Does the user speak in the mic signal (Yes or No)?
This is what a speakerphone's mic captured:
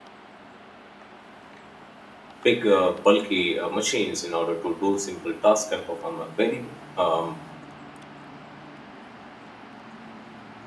Yes